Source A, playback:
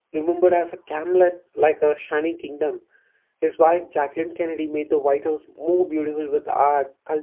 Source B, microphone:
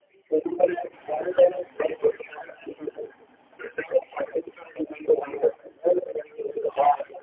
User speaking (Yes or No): No